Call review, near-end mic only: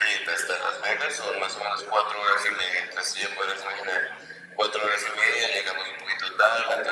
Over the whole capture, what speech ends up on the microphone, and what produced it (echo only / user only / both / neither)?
echo only